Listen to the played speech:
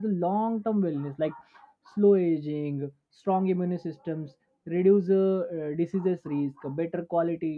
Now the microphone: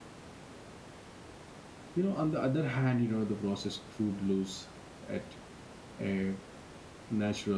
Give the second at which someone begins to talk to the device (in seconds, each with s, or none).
1.9 s